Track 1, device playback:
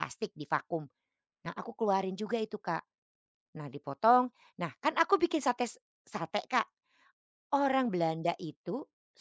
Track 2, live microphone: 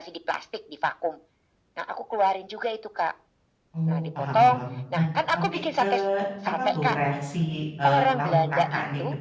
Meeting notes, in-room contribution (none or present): present